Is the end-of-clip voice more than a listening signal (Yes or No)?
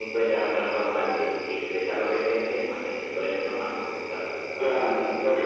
Yes